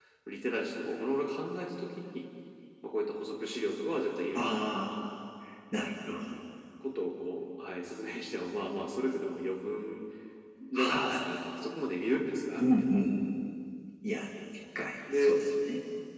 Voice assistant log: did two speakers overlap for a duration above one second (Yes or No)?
No